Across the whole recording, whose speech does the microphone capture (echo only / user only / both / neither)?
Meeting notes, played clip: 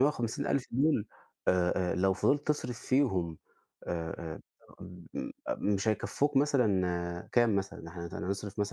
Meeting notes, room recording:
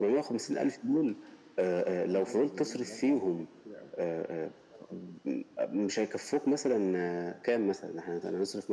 both